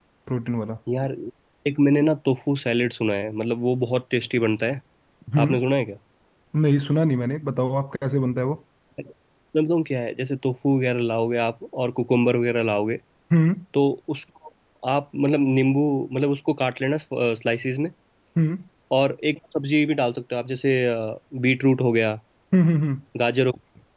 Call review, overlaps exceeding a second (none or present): none